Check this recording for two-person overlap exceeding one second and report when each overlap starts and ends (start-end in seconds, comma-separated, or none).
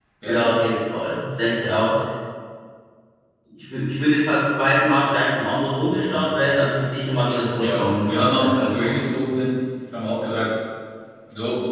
7.6-9.1